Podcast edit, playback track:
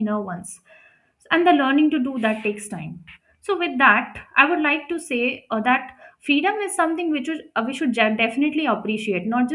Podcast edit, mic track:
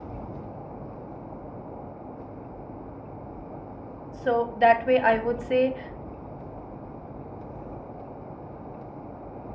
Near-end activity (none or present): present